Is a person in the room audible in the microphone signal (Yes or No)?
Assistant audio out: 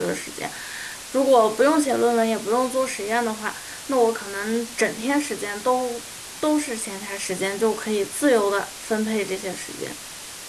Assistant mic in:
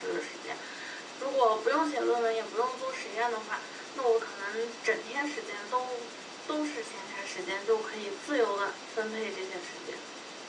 No